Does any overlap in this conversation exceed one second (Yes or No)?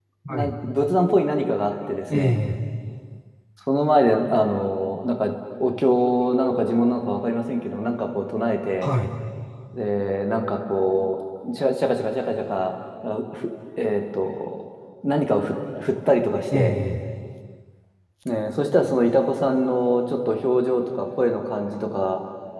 No